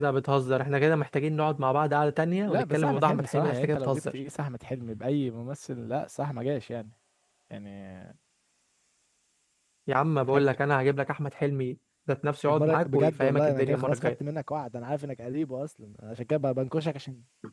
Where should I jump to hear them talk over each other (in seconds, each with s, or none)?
2.5 s